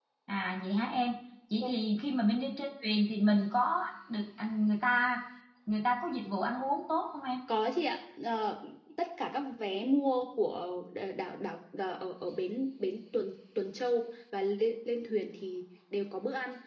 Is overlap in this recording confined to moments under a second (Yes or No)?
Yes